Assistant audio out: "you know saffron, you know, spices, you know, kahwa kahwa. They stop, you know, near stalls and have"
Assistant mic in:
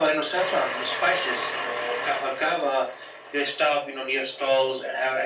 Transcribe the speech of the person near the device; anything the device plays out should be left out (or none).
none